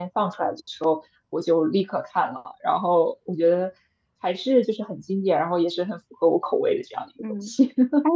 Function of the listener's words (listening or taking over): taking over